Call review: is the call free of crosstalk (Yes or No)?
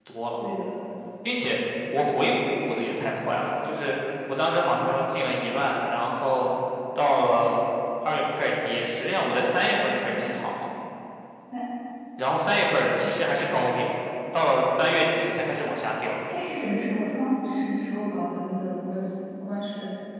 Yes